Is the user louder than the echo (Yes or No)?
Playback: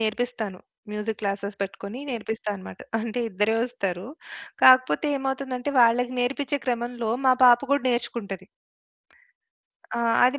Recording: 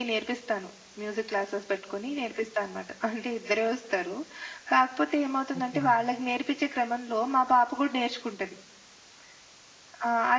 No